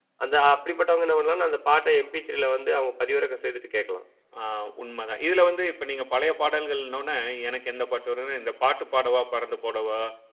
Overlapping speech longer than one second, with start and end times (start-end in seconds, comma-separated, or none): none